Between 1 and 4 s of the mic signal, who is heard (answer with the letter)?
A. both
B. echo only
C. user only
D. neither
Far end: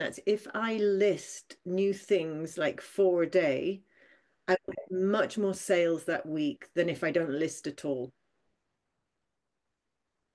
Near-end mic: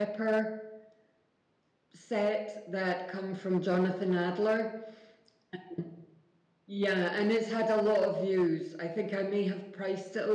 C